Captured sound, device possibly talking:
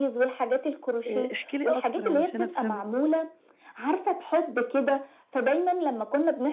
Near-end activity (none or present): present